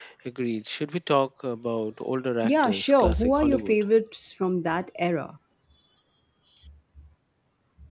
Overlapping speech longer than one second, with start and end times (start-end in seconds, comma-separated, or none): 2.4-3.7